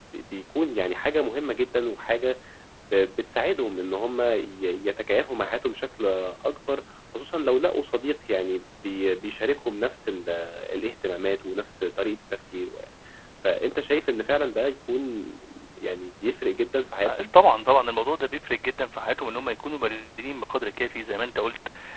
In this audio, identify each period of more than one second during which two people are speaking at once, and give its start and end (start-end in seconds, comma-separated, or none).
none